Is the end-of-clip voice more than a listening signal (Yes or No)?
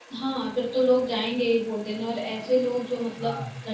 No